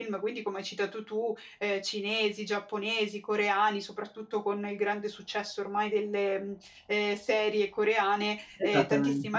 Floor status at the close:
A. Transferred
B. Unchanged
B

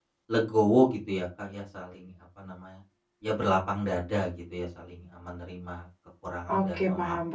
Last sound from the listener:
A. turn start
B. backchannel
A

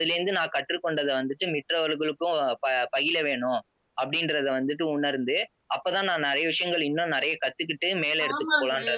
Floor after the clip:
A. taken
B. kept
A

